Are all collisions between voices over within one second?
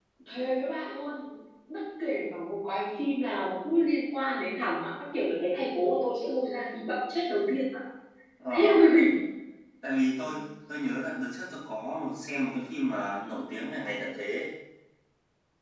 Yes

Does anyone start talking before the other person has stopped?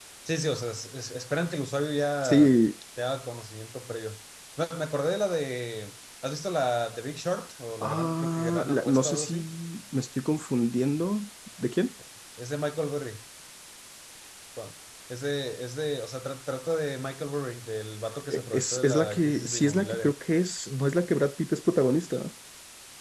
Yes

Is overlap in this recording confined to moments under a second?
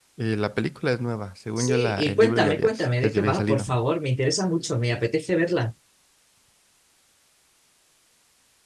No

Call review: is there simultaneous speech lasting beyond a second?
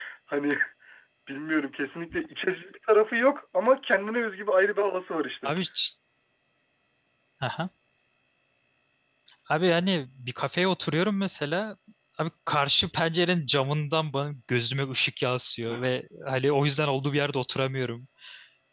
No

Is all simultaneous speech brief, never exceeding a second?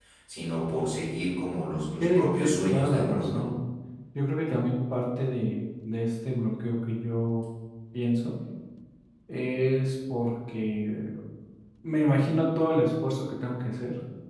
No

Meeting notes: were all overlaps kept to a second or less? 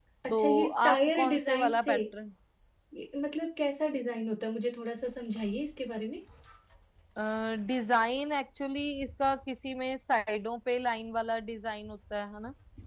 No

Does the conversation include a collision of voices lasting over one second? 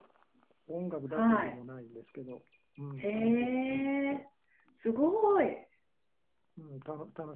Yes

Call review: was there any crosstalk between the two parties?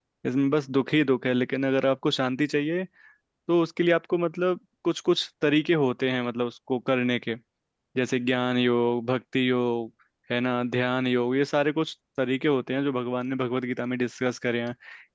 No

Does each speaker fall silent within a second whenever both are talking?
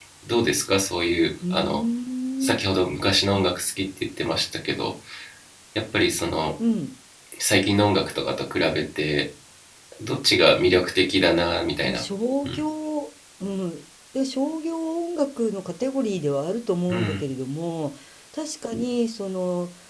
Yes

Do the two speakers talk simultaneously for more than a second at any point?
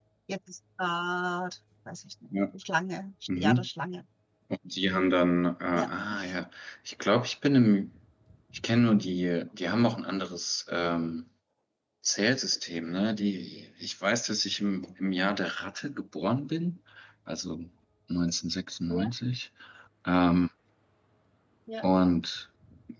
No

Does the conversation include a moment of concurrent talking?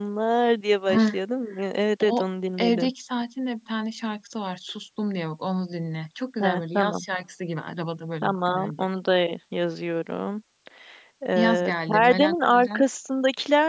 Yes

